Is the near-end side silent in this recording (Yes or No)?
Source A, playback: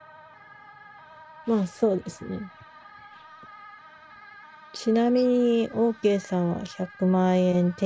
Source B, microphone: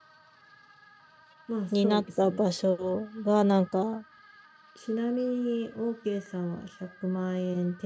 No